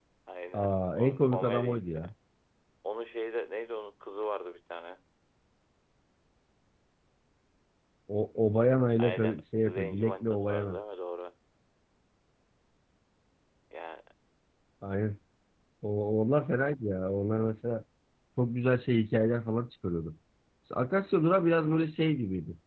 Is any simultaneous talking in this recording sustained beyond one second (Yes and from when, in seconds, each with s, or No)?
Yes, from 0.6 s